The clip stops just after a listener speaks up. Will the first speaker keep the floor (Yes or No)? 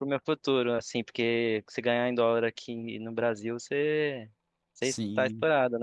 No